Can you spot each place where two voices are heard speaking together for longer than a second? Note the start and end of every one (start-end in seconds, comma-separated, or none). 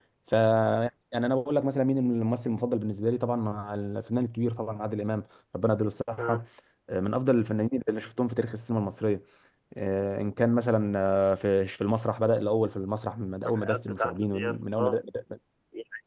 13.4-15.0